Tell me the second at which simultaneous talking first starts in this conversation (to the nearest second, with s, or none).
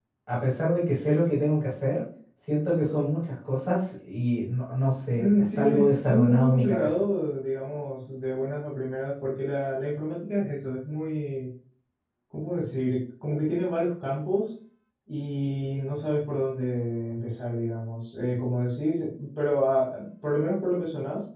5 s